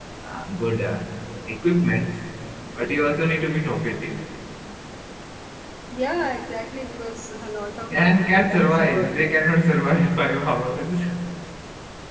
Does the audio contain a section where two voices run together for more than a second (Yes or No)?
Yes